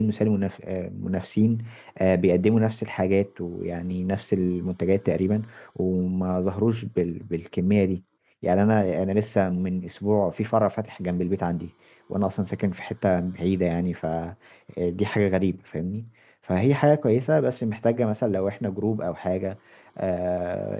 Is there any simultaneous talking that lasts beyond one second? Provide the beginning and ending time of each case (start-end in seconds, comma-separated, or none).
none